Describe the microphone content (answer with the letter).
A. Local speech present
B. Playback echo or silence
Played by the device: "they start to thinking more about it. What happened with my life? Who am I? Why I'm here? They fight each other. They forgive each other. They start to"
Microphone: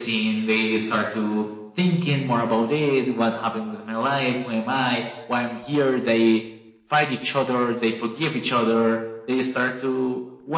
B